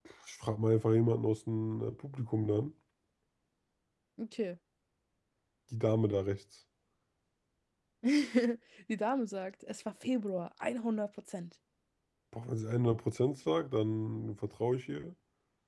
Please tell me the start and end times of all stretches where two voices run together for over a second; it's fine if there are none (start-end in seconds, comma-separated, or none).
none